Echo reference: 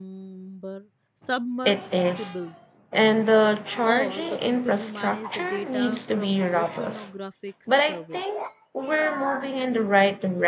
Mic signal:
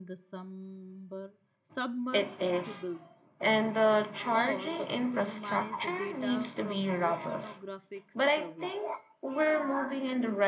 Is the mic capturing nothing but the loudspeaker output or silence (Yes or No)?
Yes